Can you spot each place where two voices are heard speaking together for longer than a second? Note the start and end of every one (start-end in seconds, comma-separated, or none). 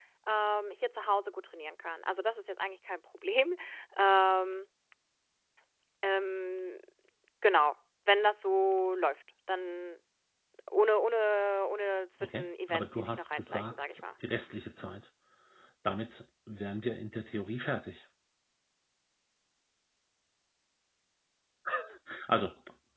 12.3-13.9